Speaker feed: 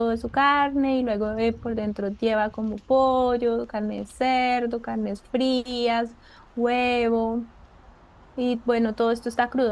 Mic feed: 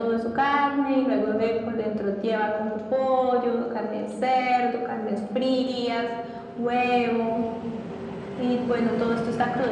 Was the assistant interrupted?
No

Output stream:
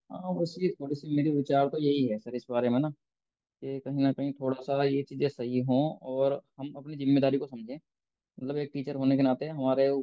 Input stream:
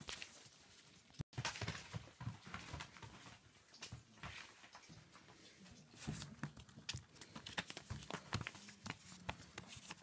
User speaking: No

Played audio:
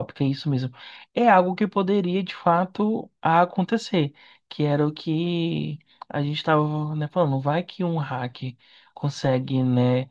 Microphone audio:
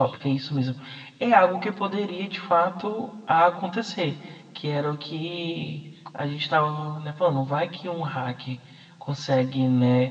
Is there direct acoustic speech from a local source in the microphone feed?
No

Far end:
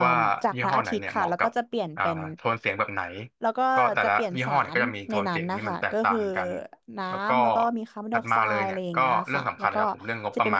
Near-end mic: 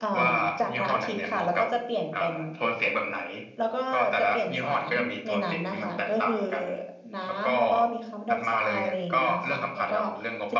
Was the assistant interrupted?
No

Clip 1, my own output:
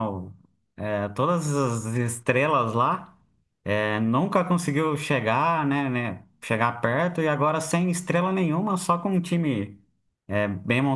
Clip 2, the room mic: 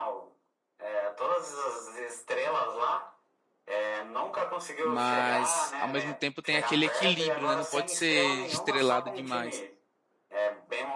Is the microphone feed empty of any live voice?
No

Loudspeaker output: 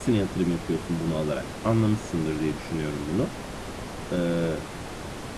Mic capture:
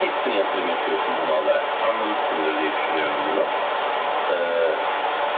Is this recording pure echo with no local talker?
Yes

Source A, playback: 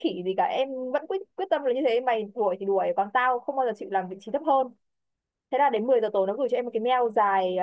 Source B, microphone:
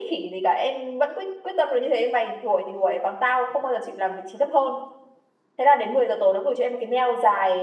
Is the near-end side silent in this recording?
Yes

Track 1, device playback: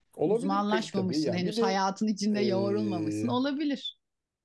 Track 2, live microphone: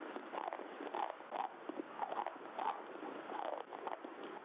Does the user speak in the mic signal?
No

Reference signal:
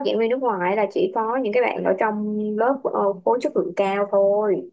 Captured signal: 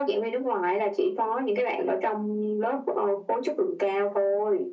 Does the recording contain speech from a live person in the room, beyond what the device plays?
No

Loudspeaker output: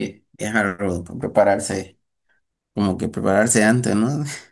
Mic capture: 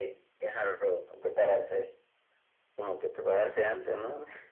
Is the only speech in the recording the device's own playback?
Yes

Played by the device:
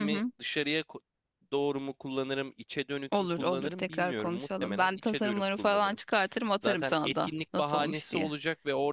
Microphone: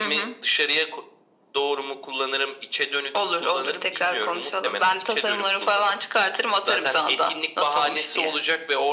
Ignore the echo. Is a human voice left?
No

